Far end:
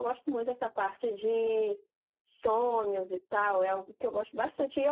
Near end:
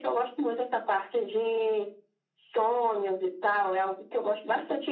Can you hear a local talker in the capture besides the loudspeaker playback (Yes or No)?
No